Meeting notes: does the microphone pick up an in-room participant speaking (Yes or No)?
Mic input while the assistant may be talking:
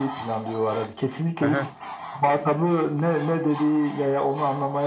Yes